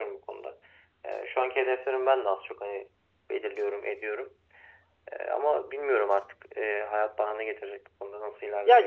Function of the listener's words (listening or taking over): taking over